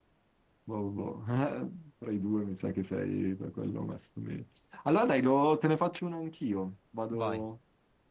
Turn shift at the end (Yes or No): No